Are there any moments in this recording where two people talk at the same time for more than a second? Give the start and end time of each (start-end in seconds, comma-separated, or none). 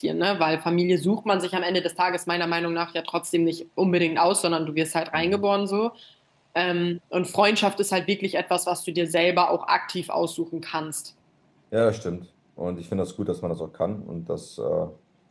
none